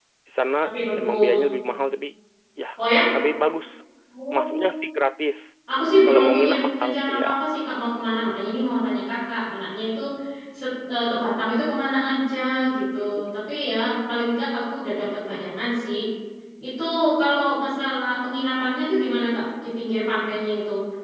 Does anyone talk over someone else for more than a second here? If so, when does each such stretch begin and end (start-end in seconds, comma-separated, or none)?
6.0-7.2